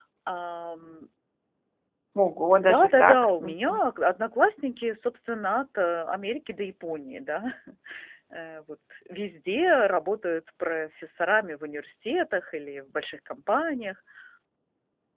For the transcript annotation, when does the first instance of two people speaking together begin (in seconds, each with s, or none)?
2.6 s